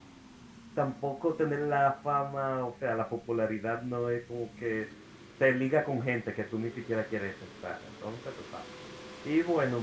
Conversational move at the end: listening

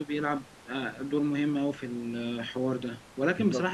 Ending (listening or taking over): listening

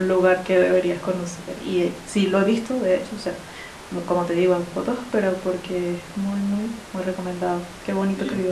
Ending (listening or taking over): taking over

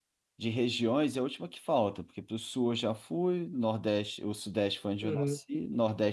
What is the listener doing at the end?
listening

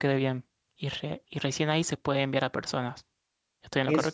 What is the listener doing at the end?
taking over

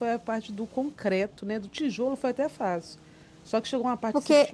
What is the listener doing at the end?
listening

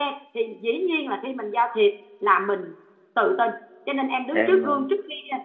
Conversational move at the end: listening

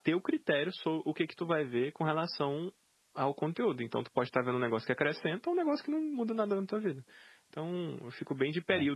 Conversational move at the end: listening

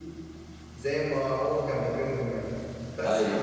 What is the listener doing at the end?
listening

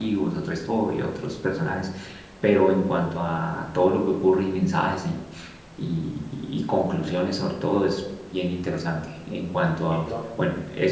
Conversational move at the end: listening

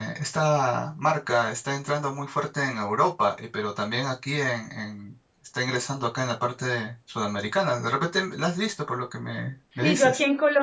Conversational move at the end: taking over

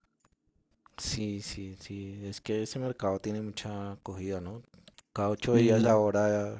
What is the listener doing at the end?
listening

